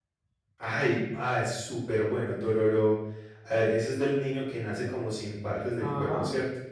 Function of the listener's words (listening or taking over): taking over